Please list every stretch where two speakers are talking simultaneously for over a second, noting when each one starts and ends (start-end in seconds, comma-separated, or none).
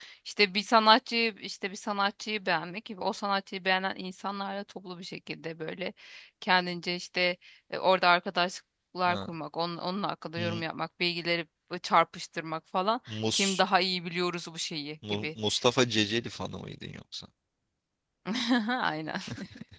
none